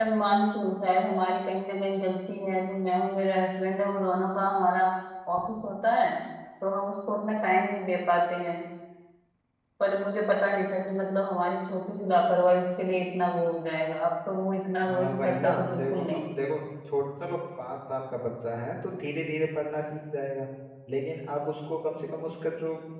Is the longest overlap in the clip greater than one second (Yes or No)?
Yes